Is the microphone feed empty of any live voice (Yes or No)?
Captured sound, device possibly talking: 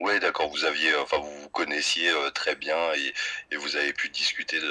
Yes